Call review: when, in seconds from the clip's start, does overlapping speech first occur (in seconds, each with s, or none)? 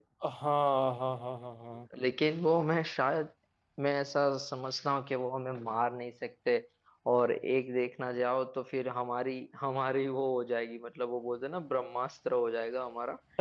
none